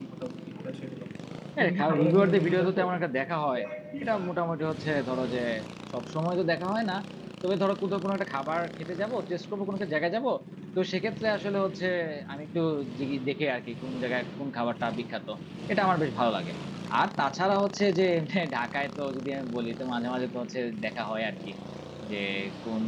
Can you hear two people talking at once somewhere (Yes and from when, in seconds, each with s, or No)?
Yes, from 1.6 s